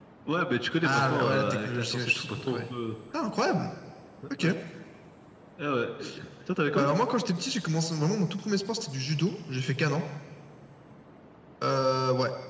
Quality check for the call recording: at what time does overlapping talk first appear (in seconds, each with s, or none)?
0.8 s